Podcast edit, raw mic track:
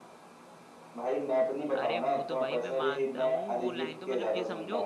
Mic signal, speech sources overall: both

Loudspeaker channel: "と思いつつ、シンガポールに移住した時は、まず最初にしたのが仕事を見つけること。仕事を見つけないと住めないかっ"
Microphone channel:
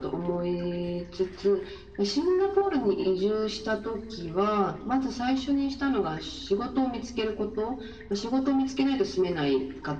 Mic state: echo only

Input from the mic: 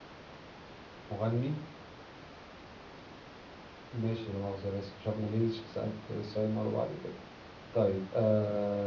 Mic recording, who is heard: echo only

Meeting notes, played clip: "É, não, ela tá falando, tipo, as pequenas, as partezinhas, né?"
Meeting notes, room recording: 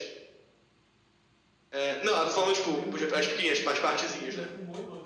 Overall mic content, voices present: both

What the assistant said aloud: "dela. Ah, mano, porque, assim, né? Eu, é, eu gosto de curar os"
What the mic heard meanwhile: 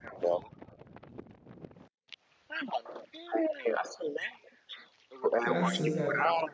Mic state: both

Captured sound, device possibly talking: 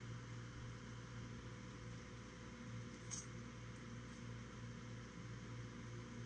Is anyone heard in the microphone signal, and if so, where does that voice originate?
neither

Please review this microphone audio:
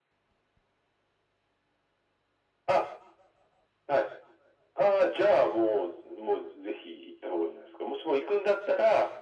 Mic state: echo only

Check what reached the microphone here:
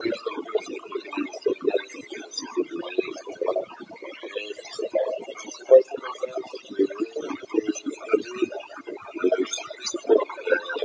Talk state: echo only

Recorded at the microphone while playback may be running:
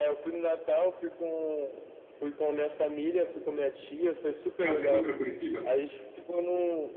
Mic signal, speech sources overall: both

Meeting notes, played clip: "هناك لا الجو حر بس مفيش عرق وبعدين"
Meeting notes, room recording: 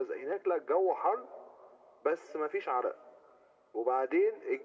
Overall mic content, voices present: echo only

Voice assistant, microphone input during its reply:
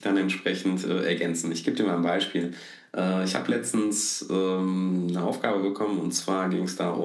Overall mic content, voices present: echo only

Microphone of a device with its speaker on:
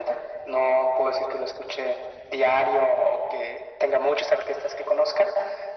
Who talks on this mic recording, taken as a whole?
echo only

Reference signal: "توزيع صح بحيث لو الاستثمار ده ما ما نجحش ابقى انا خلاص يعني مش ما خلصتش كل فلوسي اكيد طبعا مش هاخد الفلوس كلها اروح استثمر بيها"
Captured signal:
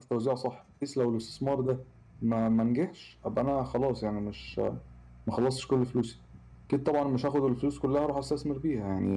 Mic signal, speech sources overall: echo only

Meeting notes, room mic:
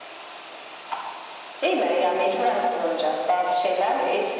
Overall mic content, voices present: echo only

